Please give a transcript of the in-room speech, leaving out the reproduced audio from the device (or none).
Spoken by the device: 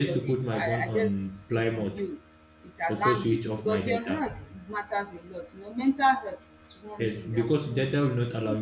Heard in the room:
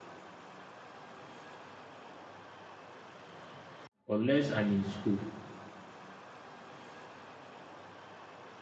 unless I'm in school.